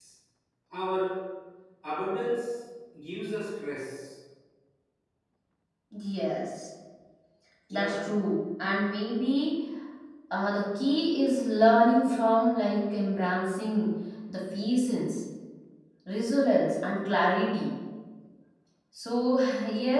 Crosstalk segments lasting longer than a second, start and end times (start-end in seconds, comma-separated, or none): none